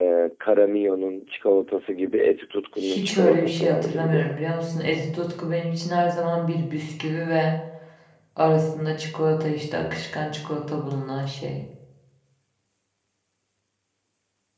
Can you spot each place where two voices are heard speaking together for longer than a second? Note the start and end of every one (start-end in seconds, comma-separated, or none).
2.8-4.4